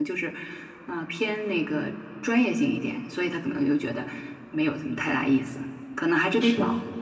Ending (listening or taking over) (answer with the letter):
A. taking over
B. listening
B